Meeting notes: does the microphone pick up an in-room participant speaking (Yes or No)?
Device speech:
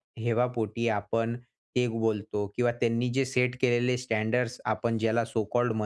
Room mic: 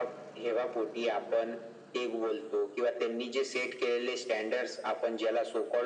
No